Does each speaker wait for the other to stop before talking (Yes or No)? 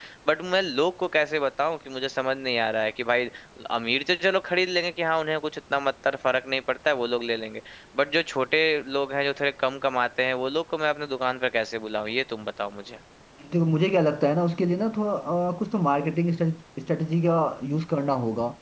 Yes